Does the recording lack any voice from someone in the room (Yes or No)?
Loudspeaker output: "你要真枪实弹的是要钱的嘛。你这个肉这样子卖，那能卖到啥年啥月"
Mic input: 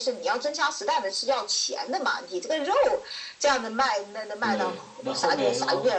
No